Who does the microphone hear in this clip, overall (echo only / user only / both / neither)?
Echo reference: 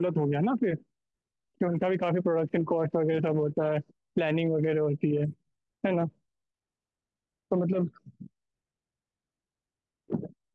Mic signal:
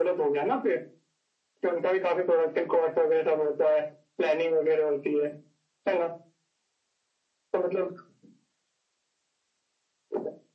echo only